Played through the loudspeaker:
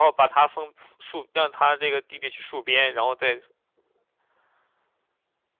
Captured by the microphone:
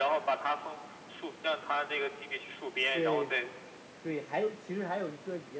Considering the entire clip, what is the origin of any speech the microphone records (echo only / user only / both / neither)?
both